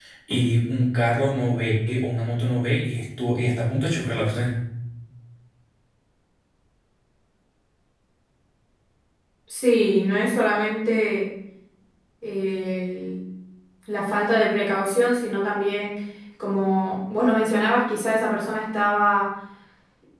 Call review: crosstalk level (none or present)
none